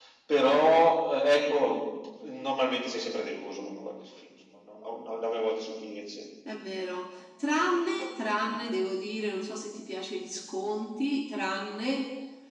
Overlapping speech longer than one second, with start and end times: none

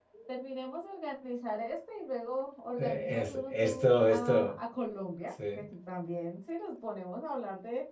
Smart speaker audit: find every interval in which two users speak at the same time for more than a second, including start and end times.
2.8-4.5

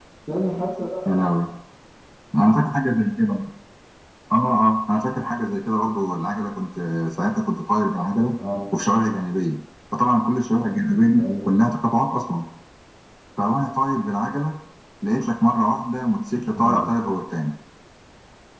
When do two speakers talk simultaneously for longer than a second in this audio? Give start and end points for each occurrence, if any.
none

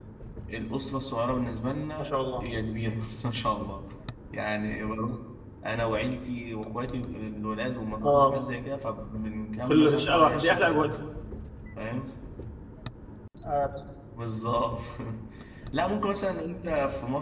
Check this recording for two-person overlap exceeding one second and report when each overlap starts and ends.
9.7-10.9

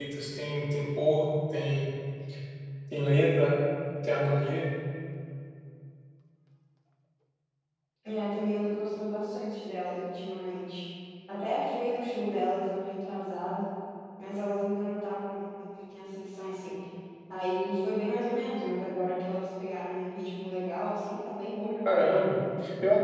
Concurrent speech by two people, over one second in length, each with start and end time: none

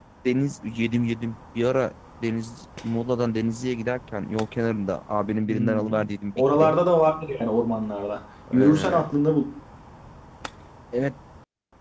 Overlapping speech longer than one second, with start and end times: none

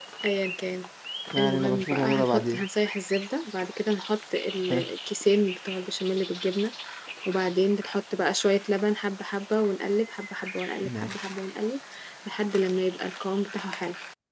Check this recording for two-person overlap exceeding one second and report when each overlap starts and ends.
1.4-2.6

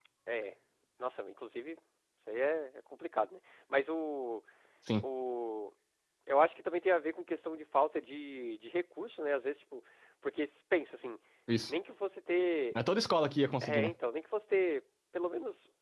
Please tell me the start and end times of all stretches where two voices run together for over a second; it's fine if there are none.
none

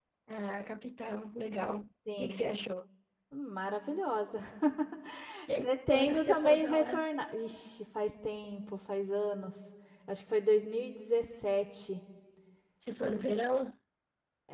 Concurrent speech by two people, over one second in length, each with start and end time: 5.6-7.0

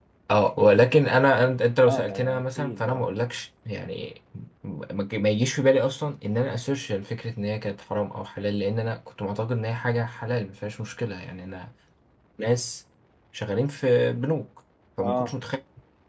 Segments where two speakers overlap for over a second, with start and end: 1.8-3.1

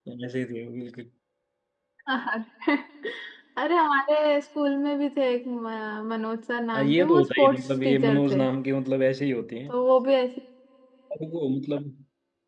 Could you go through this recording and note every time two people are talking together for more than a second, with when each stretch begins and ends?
6.7-8.4

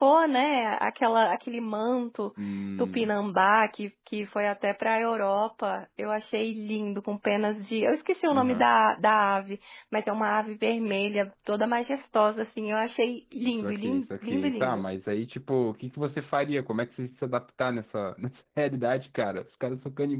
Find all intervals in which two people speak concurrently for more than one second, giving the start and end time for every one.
13.5-14.8

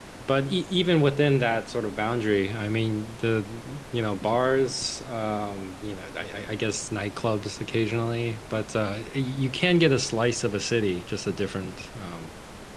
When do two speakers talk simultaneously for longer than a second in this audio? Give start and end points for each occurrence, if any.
none

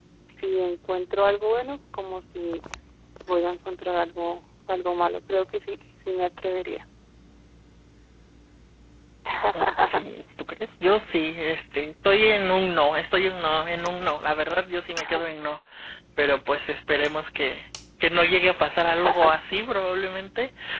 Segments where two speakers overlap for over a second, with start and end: none

